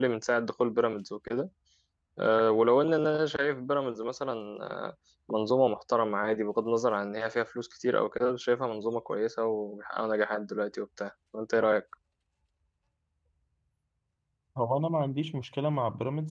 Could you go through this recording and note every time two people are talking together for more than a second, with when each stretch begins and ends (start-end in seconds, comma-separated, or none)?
none